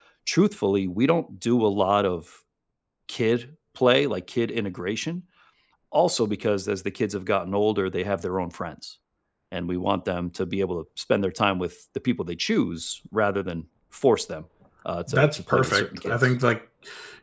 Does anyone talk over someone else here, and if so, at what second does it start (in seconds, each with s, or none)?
15.1 s